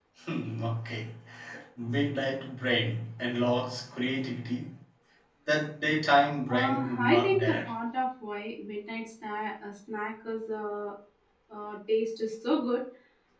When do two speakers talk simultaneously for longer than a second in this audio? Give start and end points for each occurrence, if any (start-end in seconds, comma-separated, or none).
6.5-7.7